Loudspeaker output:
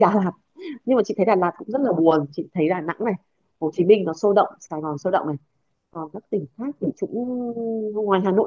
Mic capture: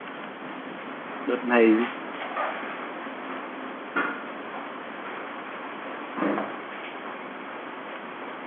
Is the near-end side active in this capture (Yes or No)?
Yes